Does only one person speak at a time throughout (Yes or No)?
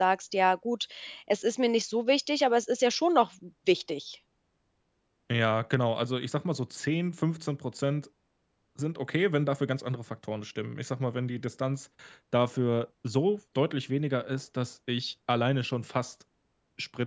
Yes